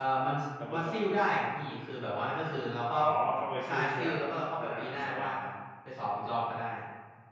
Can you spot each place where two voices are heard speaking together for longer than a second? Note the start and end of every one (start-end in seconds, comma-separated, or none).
3.6-5.2